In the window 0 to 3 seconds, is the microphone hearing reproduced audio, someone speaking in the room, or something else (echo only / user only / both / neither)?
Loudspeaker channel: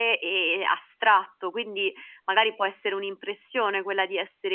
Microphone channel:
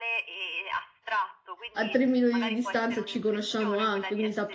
both